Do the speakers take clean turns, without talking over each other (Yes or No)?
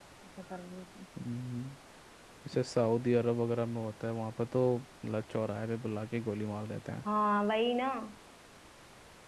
Yes